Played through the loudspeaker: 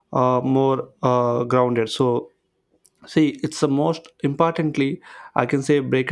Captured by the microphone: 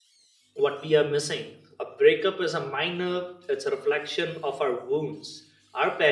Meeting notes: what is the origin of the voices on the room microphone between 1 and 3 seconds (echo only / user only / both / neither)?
user only